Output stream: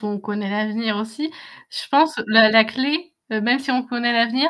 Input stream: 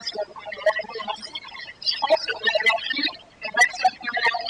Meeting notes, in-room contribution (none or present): none